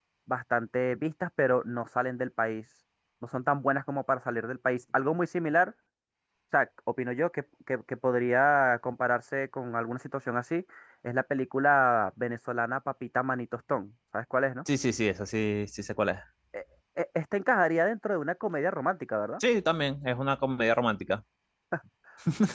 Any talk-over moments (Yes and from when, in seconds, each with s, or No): No